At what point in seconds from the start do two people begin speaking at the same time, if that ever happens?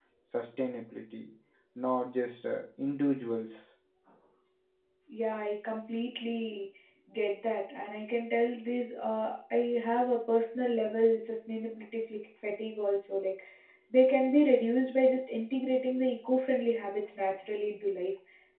none

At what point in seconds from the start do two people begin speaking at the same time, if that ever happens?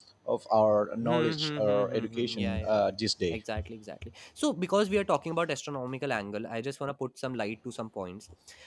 1.0 s

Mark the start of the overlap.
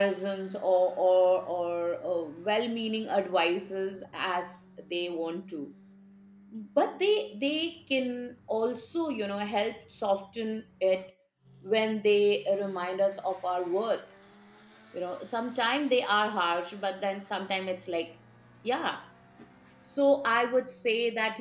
none

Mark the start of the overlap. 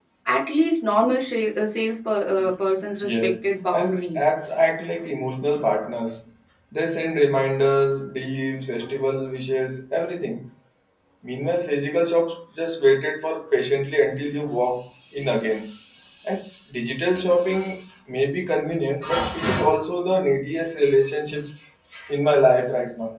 3.0 s

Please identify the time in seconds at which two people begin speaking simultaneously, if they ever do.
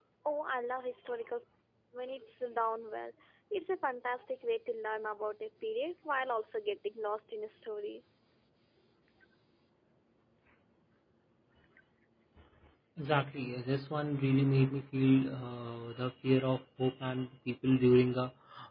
none

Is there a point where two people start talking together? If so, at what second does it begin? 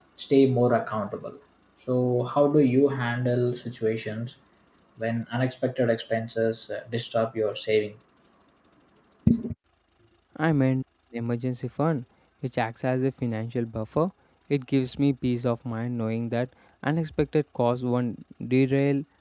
none

